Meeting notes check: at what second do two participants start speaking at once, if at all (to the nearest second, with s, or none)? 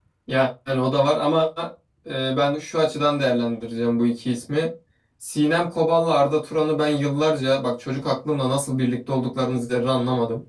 none